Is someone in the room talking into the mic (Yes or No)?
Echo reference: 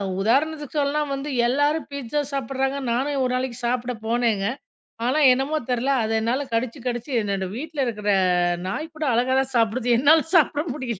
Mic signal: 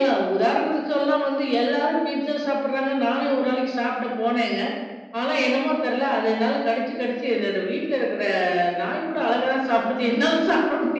No